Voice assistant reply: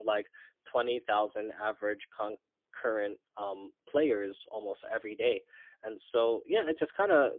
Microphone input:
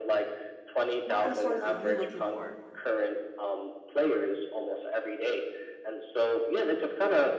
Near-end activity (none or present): present